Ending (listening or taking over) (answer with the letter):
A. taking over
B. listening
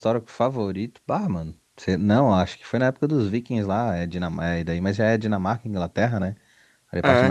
B